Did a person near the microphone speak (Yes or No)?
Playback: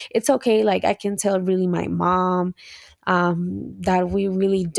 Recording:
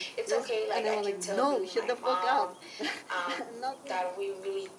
Yes